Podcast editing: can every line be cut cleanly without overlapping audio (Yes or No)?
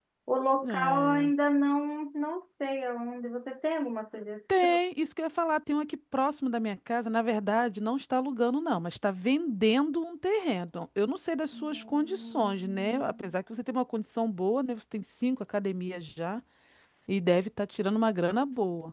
No